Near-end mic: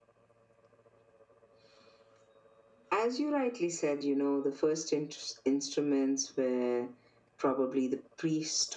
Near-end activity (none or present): none